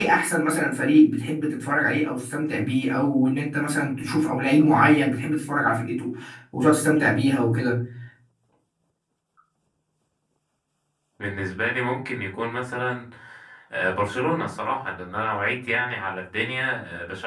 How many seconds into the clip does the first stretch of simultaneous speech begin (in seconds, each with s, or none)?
none